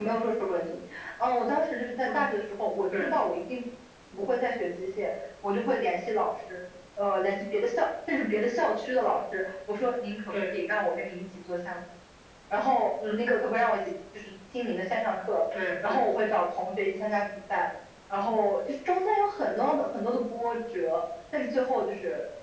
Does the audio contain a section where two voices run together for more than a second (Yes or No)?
No